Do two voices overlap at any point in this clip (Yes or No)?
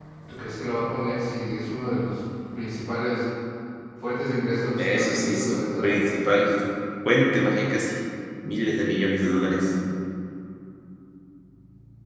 Yes